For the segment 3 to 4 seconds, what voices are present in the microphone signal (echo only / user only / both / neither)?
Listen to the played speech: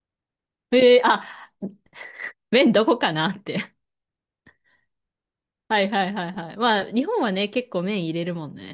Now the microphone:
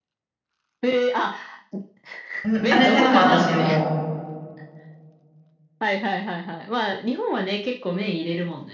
both